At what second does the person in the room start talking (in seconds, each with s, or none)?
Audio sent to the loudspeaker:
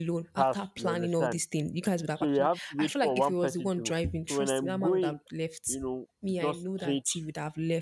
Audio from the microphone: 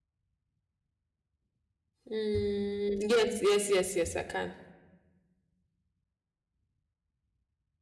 2.1 s